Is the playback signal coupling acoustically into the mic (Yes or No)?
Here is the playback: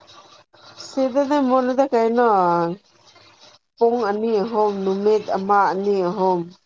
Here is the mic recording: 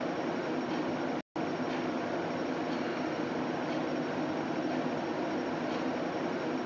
No